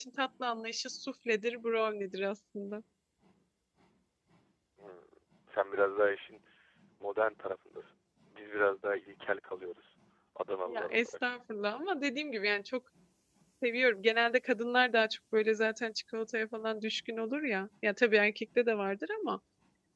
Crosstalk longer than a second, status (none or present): none